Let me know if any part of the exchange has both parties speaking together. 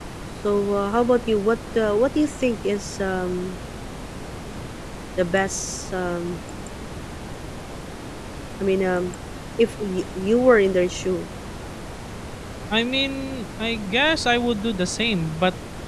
No

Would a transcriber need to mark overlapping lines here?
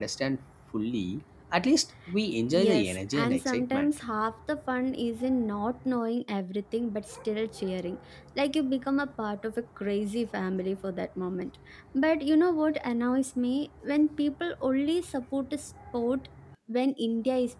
Yes, from 2.5 s

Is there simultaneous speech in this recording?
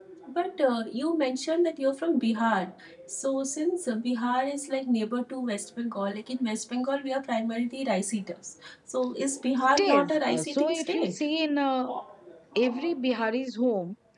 Yes, from 9.8 s

